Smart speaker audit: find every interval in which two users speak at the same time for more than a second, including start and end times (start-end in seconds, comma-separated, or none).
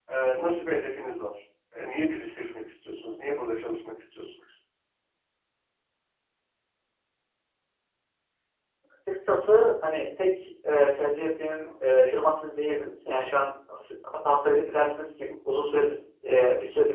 none